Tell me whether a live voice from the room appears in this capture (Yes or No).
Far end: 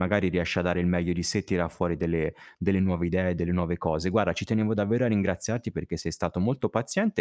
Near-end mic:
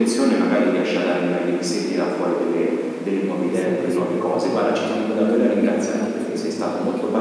Yes